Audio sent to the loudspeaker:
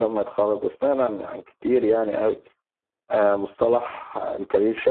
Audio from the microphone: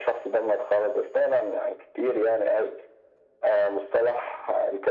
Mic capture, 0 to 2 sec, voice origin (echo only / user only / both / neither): echo only